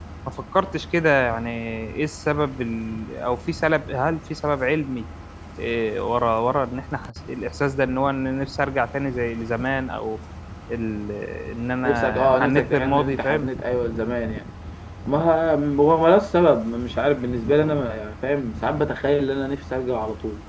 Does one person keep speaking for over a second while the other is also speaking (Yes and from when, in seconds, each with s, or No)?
Yes, from 11.8 s